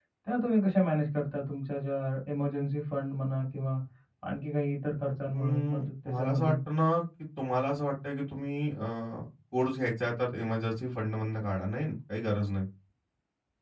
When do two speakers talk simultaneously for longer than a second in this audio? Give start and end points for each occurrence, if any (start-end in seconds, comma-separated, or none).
5.3-6.6